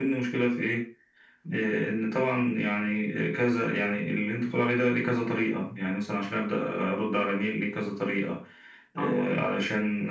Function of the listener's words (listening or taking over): listening